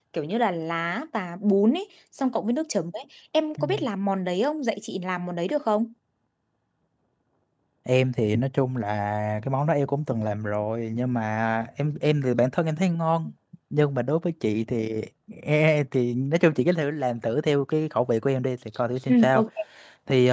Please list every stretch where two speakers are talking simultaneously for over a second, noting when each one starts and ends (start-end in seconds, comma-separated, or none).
none